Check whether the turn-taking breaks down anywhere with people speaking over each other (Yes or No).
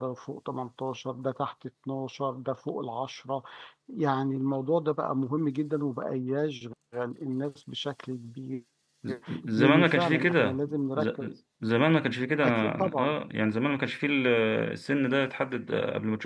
Yes